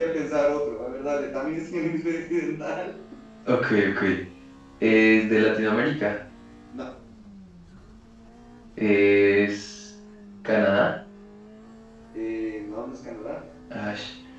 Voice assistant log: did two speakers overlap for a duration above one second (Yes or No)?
No